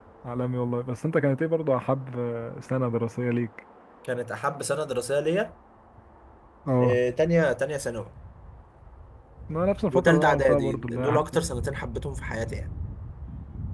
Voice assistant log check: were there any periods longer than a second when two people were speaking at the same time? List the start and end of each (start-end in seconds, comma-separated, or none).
9.9-11.2